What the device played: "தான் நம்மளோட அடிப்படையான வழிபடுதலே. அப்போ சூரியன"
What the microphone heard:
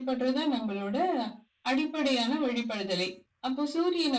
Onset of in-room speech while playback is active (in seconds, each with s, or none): none